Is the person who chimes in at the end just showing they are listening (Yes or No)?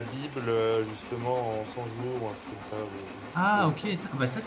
No